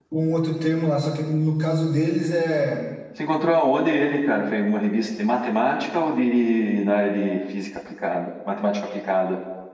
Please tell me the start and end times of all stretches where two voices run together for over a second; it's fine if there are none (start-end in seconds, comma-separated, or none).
none